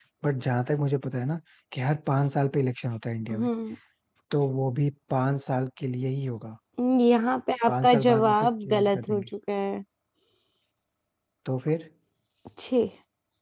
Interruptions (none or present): present